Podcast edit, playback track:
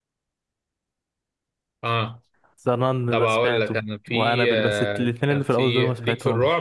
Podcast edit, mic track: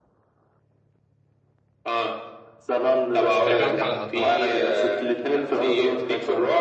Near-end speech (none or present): present